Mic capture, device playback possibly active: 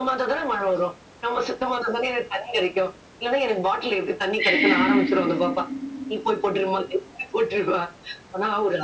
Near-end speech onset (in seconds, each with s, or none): 4.4 s